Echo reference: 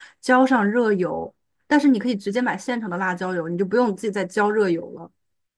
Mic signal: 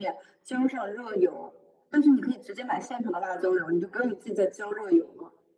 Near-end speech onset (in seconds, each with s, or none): none